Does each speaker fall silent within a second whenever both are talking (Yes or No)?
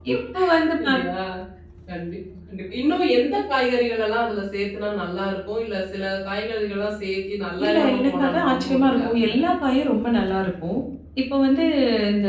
No